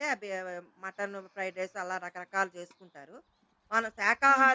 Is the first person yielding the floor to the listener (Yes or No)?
No